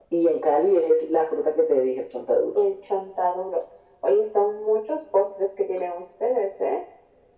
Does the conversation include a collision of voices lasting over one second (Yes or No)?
No